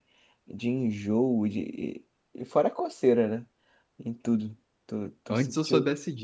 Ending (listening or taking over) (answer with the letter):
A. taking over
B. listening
A